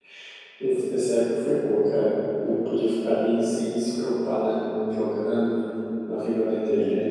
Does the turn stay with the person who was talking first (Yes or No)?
No